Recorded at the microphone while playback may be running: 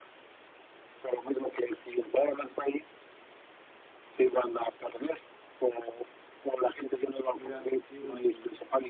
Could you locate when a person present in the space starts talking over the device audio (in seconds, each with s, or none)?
7.3 s